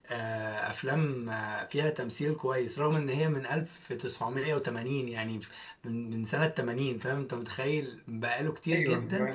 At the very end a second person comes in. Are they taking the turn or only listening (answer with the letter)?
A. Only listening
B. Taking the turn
A